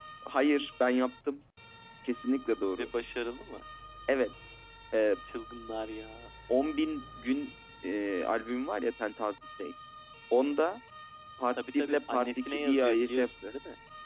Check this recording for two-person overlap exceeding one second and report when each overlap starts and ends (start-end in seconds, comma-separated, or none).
11.6-13.6